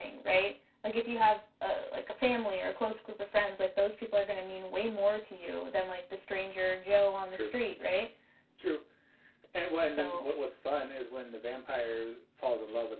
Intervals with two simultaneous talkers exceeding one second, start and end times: none

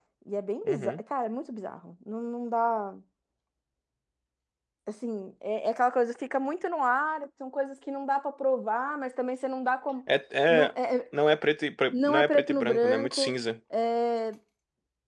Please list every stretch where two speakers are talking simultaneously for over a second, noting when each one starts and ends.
11.9-13.3

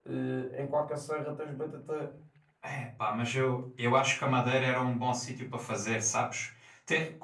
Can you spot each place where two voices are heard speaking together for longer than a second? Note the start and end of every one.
none

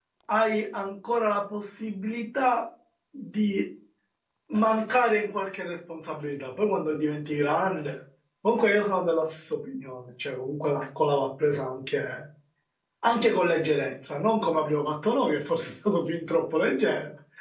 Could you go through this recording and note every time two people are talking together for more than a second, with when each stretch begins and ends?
none

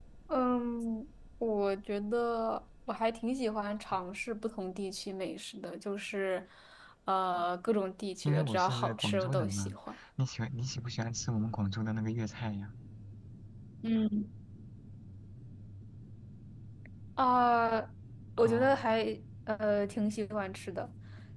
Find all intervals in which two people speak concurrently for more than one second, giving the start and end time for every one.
8.2-9.8

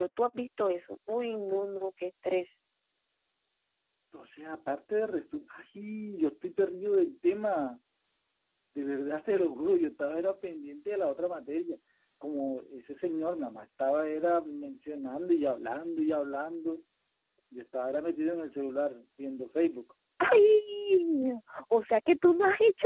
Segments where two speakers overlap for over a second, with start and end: none

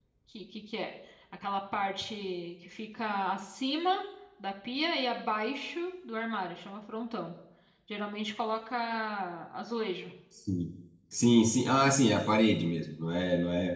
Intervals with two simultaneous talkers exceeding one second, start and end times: none

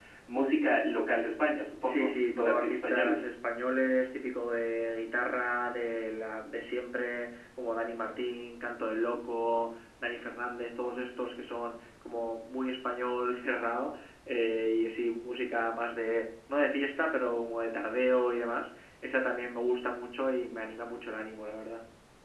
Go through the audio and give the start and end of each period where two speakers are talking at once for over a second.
1.9-3.3

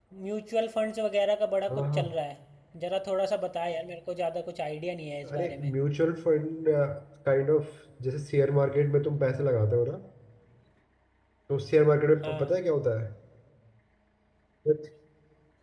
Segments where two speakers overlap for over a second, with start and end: none

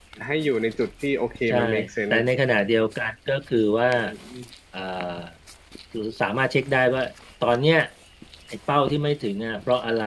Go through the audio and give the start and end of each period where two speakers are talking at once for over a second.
none

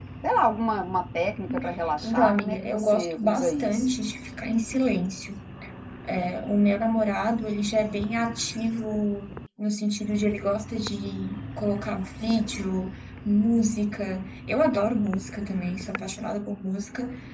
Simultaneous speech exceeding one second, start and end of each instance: 2.0-3.9

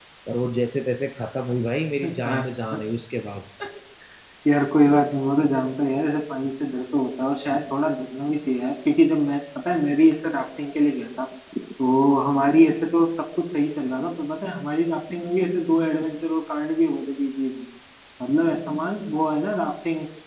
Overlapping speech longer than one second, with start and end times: none

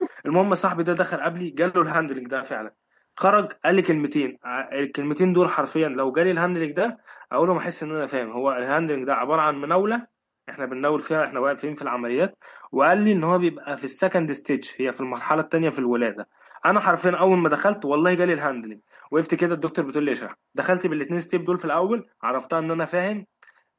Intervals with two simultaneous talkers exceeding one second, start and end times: none

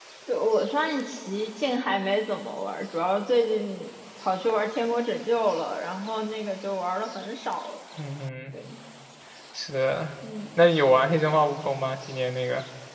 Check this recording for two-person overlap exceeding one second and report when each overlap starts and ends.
none

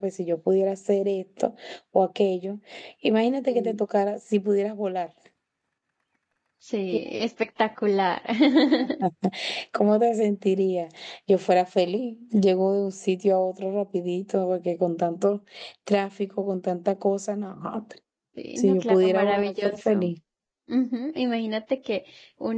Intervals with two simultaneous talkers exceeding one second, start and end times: 18.6-20.1

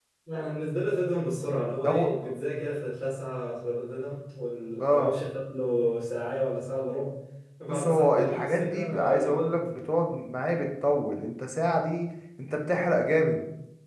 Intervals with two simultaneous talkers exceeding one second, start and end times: 7.7-9.5

